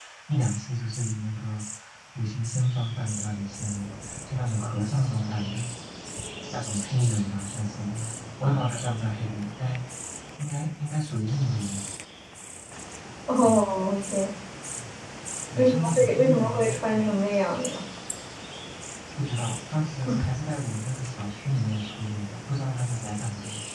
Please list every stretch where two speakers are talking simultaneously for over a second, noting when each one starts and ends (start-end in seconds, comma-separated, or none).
15.6-17.0